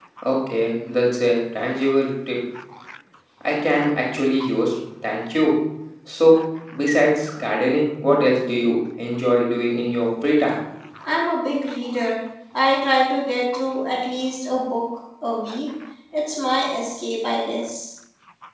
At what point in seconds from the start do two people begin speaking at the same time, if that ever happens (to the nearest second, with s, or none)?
none